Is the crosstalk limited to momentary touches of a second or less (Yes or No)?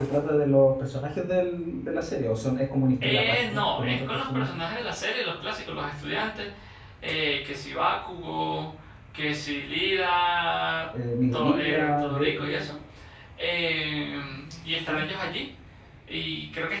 No